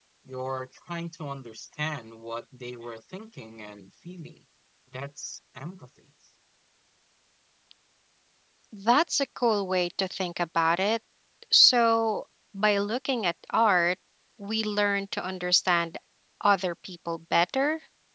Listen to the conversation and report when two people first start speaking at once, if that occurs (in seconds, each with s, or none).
none